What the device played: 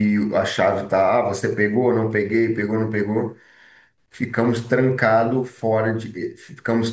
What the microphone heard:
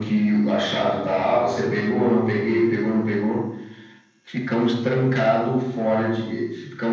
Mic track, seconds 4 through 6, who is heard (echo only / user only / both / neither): echo only